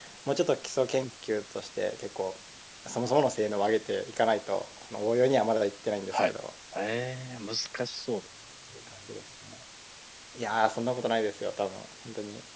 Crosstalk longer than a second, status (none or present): none